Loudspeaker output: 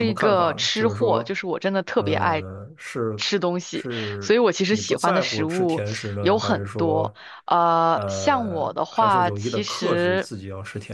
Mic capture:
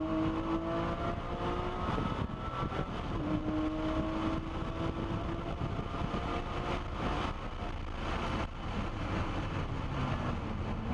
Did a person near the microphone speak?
No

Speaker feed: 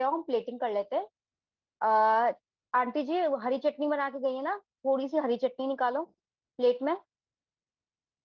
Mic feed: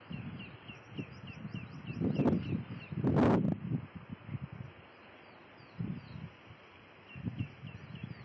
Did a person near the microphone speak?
No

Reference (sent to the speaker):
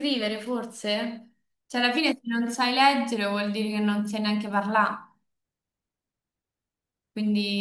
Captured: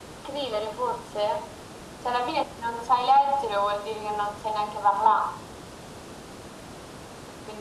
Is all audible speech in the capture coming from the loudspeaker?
Yes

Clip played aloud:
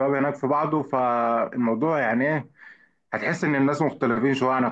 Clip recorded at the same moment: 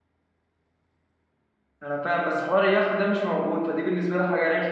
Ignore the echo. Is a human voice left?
Yes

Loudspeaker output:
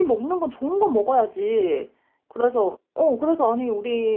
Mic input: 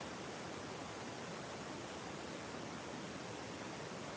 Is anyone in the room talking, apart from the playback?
No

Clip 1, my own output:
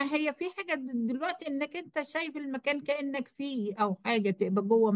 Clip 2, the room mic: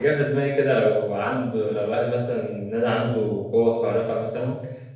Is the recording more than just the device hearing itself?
Yes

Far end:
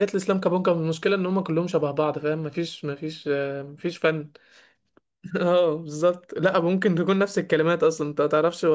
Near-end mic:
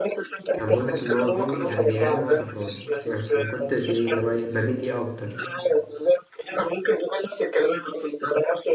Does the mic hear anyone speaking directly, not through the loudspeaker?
Yes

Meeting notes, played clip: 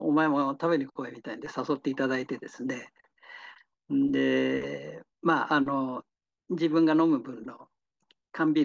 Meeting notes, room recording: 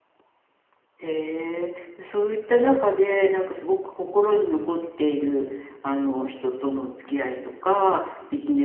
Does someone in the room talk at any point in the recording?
Yes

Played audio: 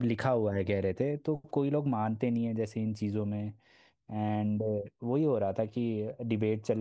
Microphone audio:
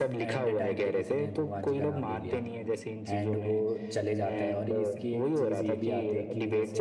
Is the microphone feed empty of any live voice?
No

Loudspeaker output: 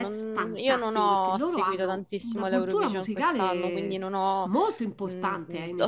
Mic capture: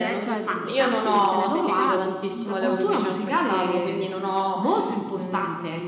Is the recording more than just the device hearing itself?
Yes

